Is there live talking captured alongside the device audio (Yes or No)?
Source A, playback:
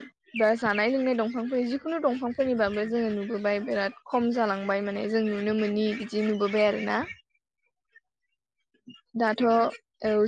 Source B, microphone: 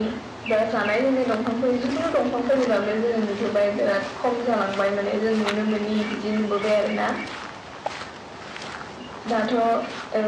No